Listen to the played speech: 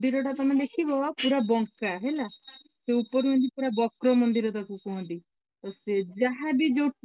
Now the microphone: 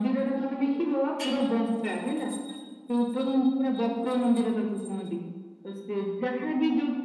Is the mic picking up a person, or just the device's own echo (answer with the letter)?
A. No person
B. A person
A